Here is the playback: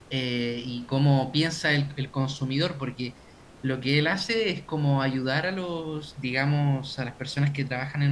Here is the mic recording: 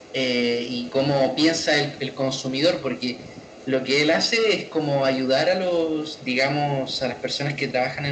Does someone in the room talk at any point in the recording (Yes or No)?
No